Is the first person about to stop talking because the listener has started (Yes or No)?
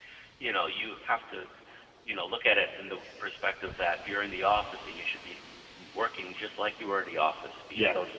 No